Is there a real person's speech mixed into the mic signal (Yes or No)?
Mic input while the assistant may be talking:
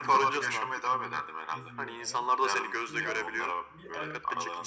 Yes